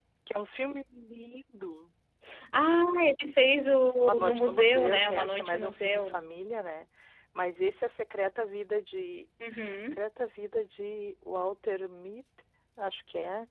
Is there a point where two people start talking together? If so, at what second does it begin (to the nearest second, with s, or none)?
4 s